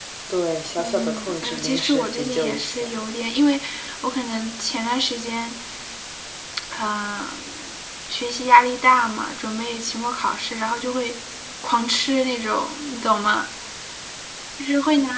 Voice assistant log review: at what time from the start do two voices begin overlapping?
0.8 s

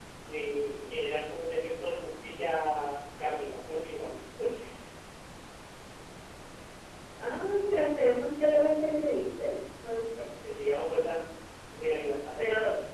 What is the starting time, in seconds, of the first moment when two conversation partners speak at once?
none

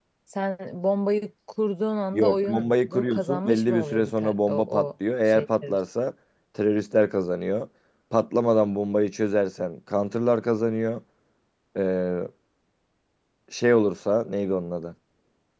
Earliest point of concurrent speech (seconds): 2.1 s

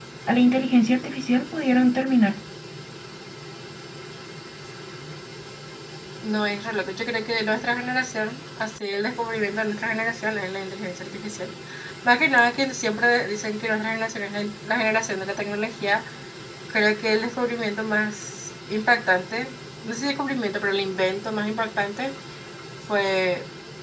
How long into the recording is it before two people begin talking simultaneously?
none

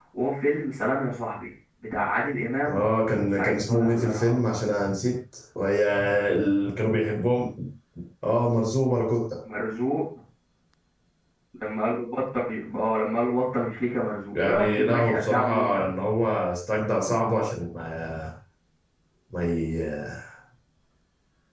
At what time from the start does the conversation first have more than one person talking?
2.6 s

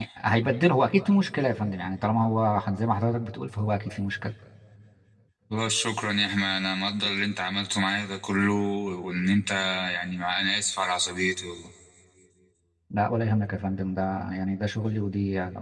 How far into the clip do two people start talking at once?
none

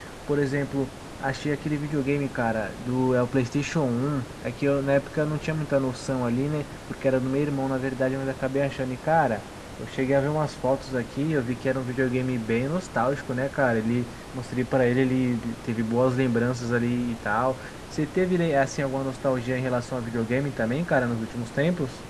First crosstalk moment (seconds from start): none

